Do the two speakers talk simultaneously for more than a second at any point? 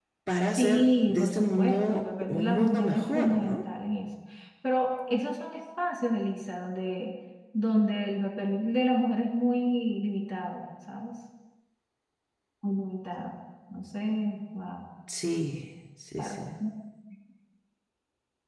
Yes, from 0.6 s

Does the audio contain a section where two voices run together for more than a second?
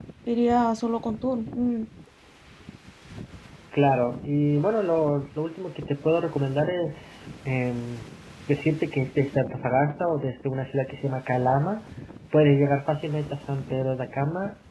No

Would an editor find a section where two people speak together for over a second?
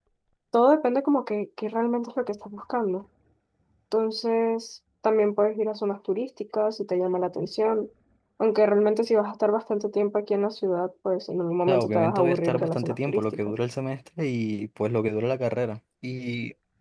Yes, from 11.7 s

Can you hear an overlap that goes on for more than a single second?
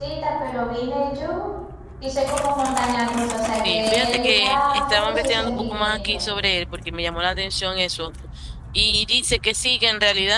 Yes, from 3.6 s

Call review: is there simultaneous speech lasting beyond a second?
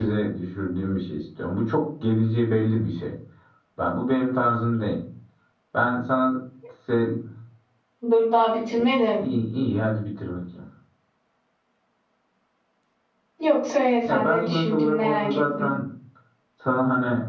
Yes, from 14.1 s

